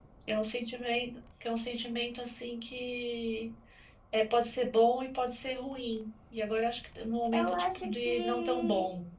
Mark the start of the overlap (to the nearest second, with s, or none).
7 s